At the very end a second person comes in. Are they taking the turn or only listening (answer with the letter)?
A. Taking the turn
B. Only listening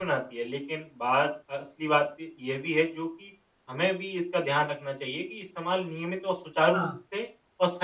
B